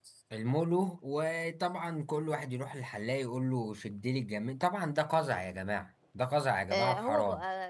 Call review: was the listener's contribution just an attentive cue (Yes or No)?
No